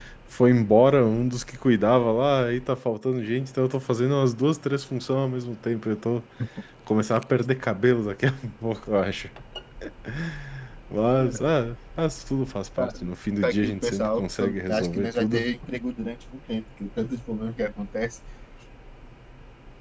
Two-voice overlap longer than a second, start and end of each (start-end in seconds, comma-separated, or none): 13.4-15.5